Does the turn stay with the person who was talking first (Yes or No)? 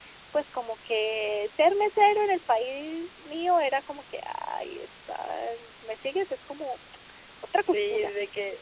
No